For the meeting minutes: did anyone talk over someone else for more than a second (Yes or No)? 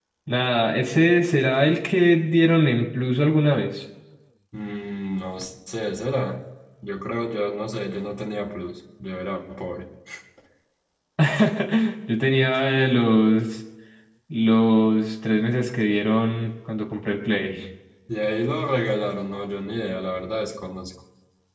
No